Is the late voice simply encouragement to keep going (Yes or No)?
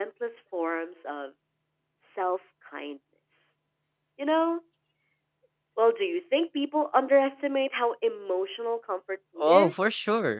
No